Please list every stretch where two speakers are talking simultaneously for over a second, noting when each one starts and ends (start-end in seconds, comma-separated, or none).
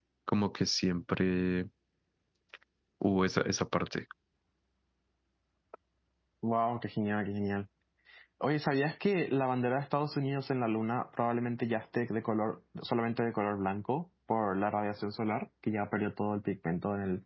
none